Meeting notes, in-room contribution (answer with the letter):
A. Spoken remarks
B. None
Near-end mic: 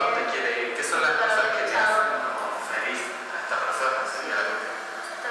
B